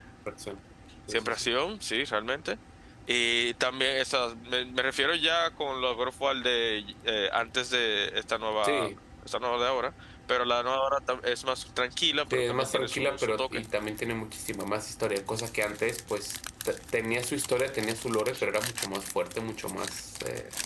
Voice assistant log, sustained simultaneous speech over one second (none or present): present